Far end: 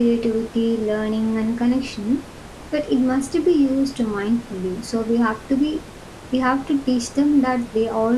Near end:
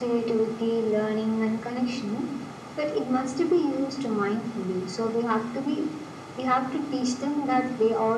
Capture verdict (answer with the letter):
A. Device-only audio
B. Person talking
A